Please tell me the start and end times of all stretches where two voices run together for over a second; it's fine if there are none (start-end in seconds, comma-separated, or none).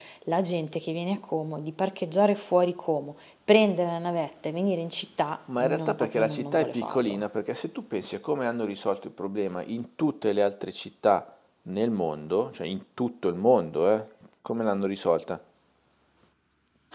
5.6-7.2